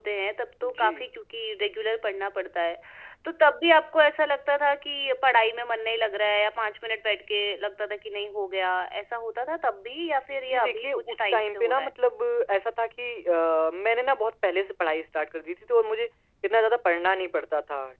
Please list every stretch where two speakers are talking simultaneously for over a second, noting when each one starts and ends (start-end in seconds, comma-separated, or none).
10.5-11.9